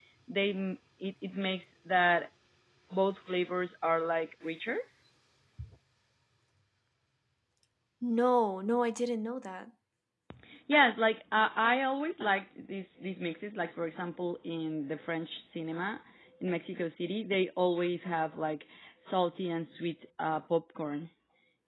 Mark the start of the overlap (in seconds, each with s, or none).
none